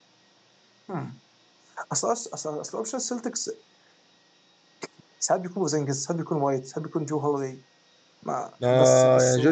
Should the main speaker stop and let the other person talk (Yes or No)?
Yes